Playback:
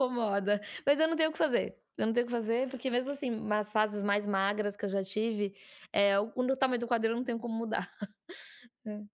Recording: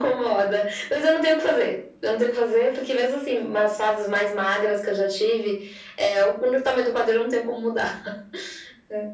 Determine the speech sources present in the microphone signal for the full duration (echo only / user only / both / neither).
echo only